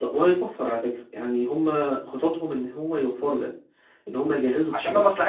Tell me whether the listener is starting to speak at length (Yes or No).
Yes